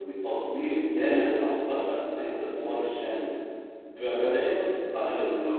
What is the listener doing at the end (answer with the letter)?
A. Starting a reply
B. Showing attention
B